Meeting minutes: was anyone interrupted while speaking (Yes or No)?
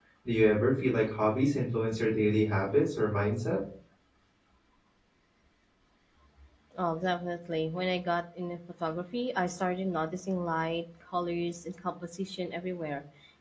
No